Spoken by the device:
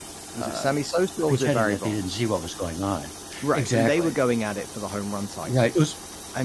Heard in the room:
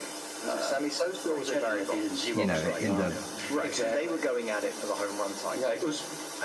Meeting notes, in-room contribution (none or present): present